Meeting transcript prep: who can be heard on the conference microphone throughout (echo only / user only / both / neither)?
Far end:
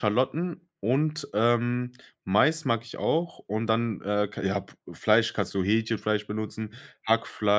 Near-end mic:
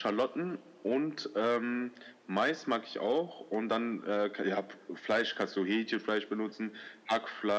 echo only